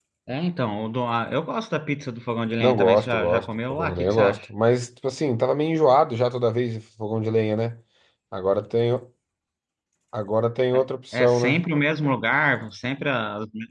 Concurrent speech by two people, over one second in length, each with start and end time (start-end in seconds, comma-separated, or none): 2.6-4.4